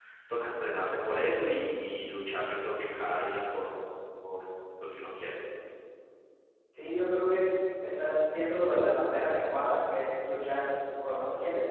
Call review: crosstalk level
none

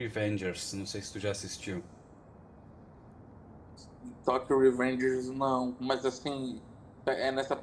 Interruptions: none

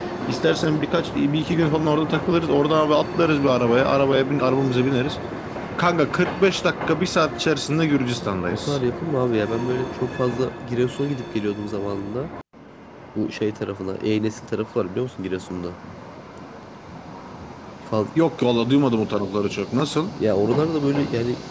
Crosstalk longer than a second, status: none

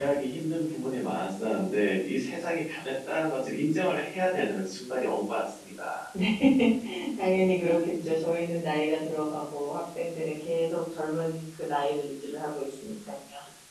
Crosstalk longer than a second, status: none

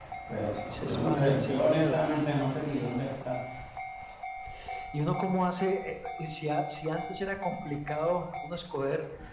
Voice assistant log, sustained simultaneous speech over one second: present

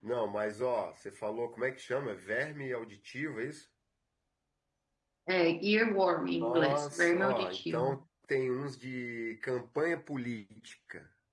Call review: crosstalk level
present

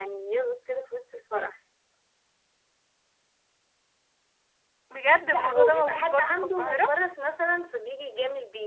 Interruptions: present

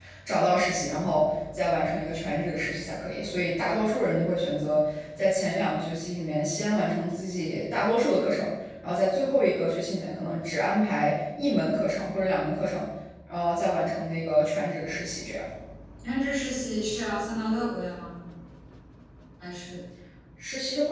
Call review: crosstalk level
none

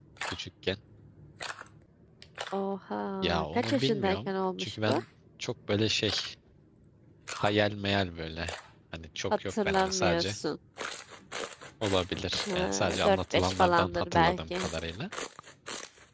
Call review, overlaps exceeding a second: present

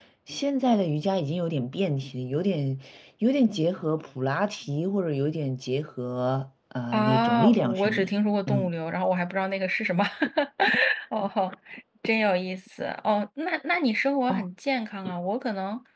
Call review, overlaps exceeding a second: present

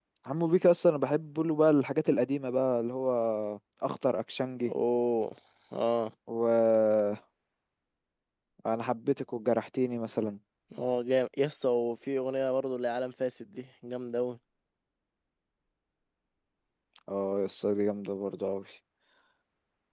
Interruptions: none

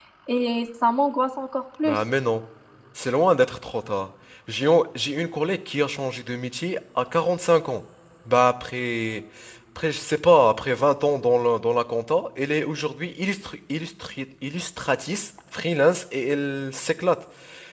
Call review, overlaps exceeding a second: none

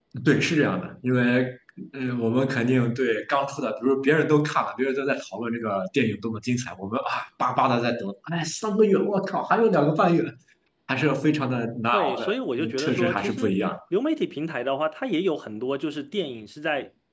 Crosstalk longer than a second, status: present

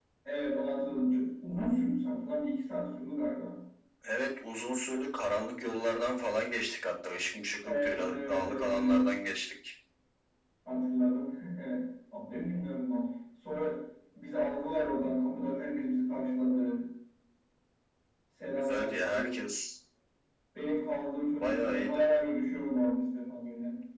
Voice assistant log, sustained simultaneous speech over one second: present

